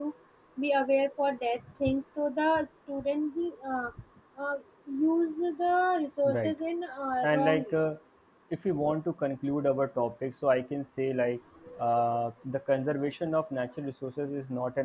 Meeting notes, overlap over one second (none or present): none